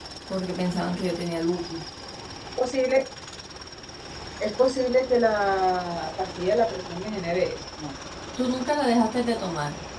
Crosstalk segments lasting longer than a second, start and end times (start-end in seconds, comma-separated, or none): none